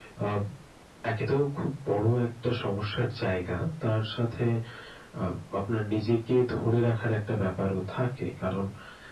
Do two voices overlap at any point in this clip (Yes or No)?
No